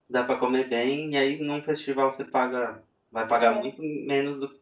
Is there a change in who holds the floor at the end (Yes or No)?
No